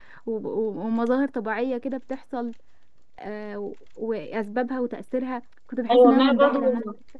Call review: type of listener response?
taking over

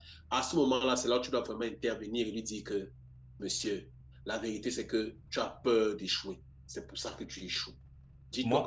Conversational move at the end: listening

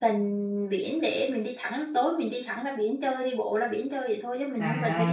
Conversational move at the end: taking over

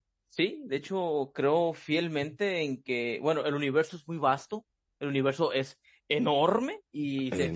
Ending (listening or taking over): listening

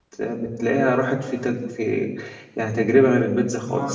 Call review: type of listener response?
taking over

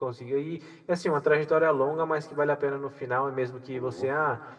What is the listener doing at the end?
listening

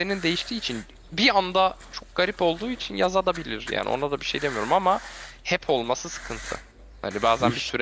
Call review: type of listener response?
listening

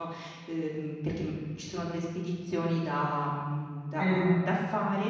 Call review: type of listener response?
listening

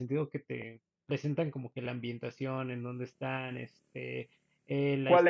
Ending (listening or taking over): taking over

